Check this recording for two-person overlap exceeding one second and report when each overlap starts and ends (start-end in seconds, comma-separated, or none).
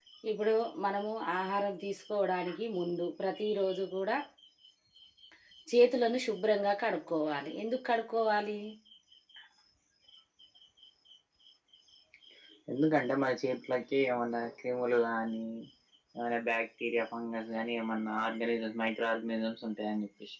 none